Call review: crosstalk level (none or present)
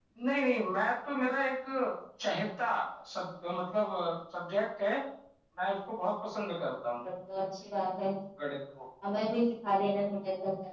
none